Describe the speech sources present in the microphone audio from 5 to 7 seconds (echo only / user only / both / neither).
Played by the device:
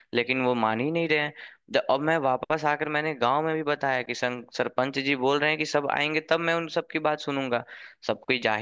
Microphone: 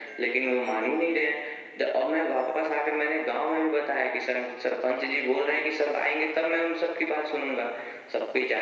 echo only